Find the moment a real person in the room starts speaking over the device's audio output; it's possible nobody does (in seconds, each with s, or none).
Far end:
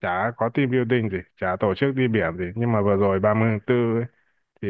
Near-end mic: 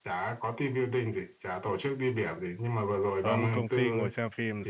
3.2 s